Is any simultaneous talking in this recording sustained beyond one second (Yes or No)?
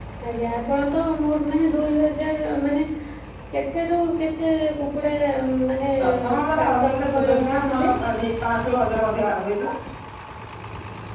Yes